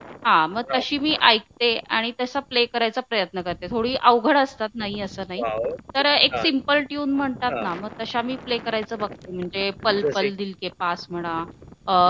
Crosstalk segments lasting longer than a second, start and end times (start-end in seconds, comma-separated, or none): none